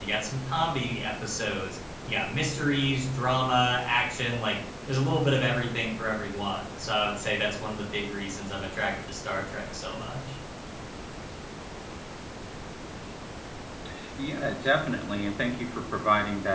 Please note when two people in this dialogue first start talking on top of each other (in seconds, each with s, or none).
none